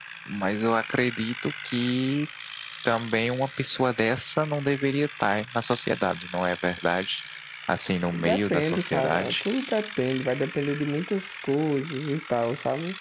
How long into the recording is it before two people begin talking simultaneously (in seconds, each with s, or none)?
8.1 s